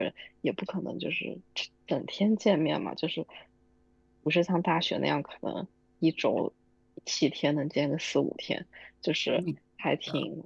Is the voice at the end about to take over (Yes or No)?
No